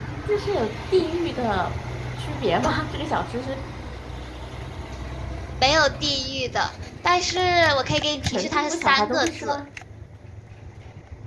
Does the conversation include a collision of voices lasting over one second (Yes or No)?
Yes